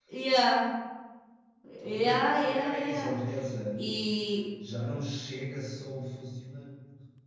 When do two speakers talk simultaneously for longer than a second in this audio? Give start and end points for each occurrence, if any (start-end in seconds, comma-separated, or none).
1.8-3.1